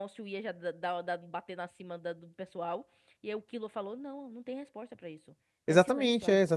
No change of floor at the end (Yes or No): No